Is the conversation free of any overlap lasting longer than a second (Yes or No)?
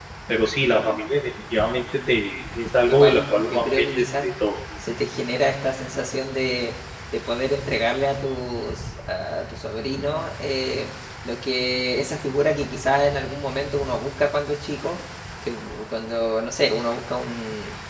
No